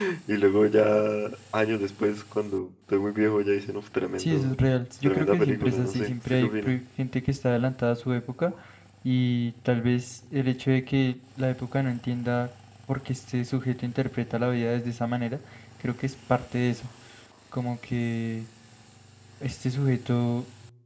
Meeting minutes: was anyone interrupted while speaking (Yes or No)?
Yes